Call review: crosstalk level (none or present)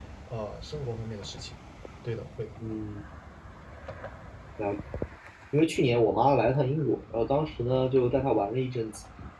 none